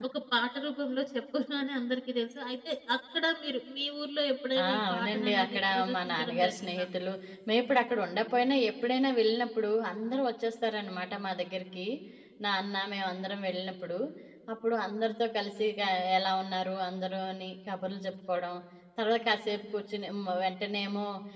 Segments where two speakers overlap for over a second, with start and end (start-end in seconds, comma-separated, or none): 4.6-6.8